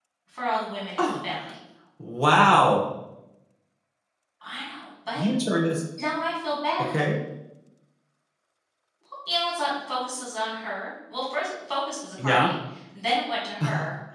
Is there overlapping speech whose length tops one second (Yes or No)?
No